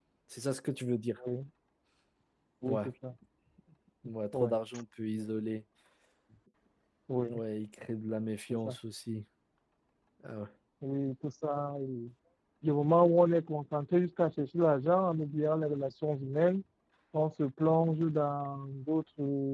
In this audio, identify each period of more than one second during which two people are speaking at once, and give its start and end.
none

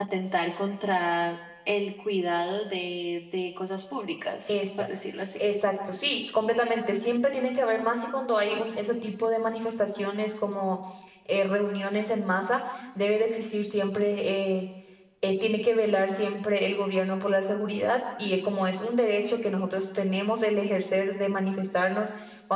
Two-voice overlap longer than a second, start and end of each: none

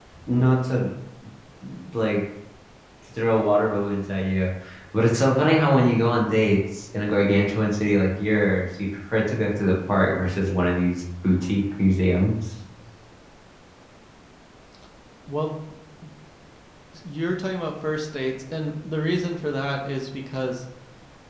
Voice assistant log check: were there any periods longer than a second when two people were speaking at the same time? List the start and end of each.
none

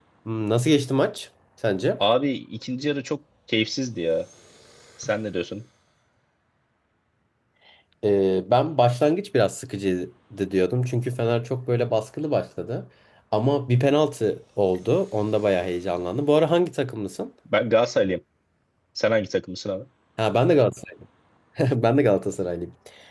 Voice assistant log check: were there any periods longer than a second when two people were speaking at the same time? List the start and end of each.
none

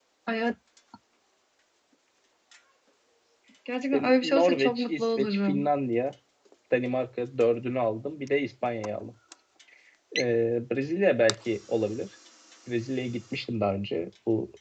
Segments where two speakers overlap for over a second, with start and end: 3.9-5.7

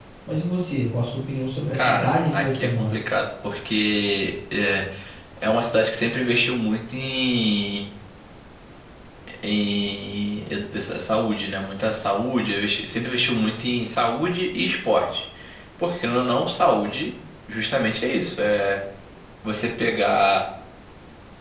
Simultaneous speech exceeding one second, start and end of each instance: 1.7-2.9

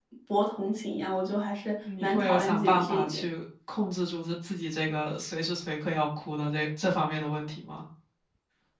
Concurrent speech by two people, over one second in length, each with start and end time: 2.0-3.2

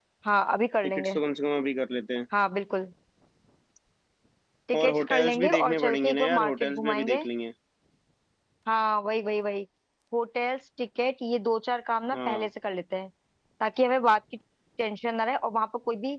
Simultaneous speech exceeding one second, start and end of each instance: 4.8-7.2

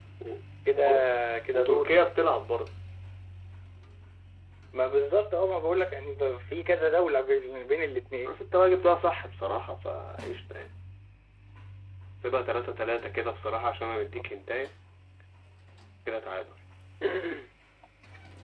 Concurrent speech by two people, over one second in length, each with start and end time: none

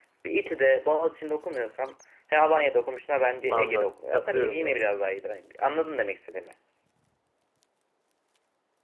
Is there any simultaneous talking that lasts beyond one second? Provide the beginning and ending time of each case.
3.5-4.9

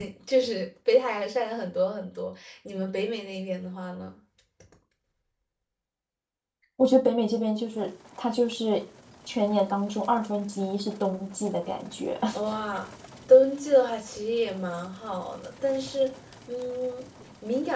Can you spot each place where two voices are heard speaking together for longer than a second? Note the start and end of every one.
none

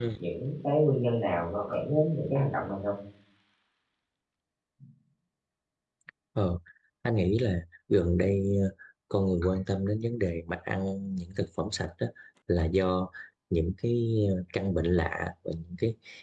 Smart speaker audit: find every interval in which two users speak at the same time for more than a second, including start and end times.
none

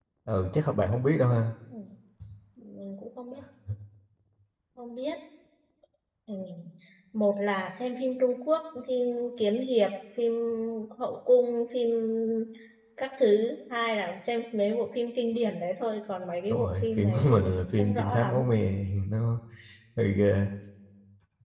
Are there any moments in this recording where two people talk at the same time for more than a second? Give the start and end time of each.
16.5-18.4

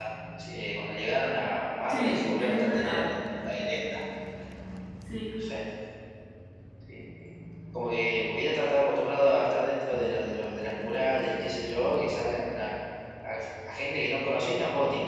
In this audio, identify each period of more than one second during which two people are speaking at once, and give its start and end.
1.9-3.1

